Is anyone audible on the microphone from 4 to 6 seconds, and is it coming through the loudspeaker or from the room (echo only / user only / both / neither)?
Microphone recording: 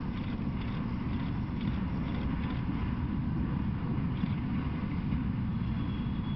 neither